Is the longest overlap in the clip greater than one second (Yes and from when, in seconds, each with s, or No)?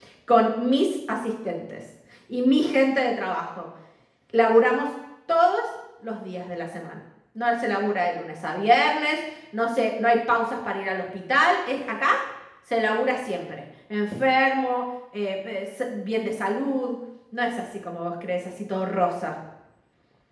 No